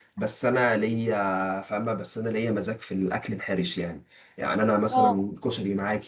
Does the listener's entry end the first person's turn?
No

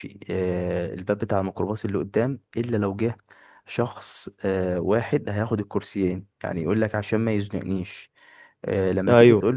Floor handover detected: No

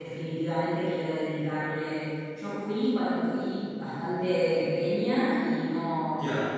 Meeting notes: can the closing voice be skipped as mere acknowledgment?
Yes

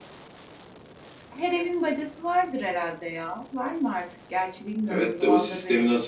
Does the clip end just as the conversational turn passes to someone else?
Yes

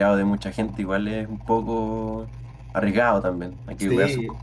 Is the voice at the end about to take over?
Yes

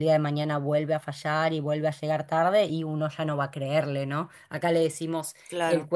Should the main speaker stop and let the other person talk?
No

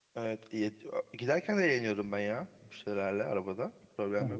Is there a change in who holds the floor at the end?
Yes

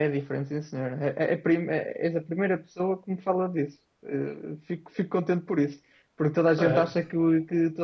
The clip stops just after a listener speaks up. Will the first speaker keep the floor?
Yes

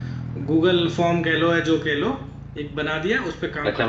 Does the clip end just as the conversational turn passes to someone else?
Yes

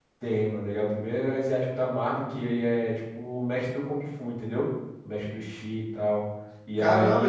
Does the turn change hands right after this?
Yes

